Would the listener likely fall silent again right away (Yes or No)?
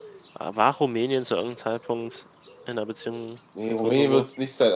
No